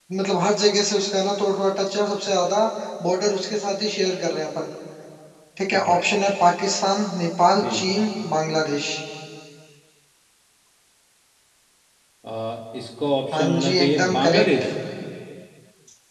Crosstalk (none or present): present